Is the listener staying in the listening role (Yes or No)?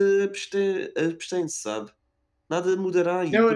No